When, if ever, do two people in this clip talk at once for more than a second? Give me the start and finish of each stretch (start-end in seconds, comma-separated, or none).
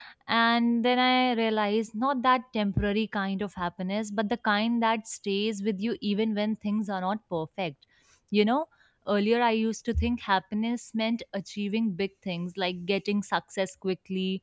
none